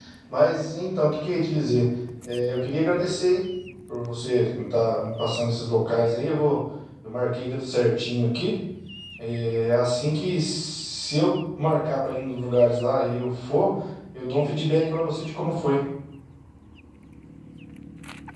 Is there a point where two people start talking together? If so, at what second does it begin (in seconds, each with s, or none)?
none